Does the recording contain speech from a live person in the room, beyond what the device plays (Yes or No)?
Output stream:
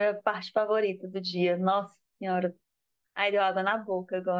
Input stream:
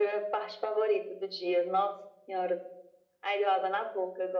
No